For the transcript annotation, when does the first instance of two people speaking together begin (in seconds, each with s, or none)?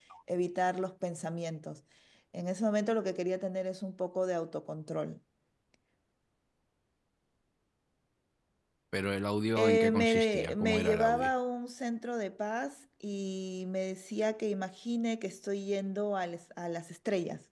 9.6 s